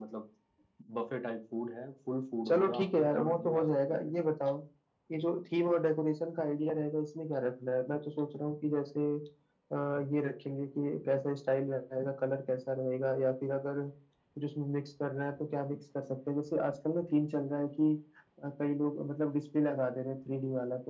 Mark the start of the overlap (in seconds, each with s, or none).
2.5 s